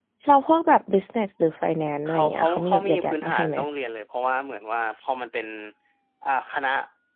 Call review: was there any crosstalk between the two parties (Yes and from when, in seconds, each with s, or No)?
Yes, from 2.0 s